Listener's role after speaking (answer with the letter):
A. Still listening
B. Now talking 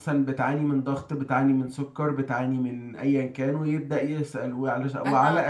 A